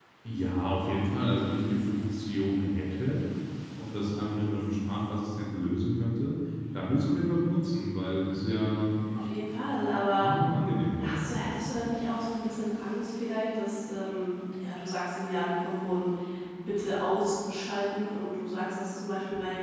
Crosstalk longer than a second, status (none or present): none